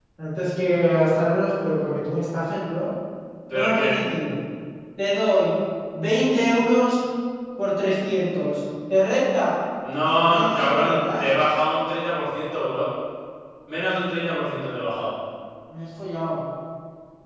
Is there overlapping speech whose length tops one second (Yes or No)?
Yes